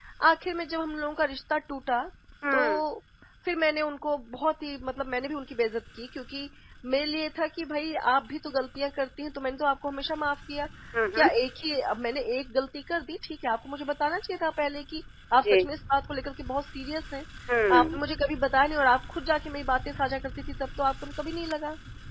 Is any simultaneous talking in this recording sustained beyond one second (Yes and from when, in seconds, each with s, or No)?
No